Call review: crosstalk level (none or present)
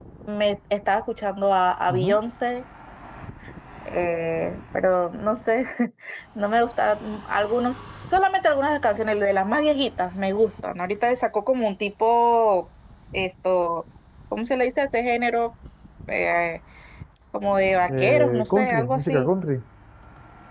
present